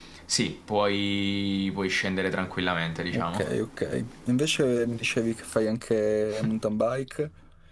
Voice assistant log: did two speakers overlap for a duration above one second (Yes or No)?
No